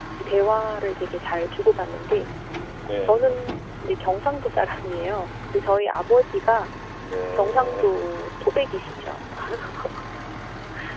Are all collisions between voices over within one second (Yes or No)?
Yes